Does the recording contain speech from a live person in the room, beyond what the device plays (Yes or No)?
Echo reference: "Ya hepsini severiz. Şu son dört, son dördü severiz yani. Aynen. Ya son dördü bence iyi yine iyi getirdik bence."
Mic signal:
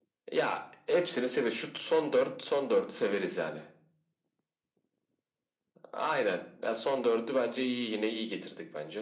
No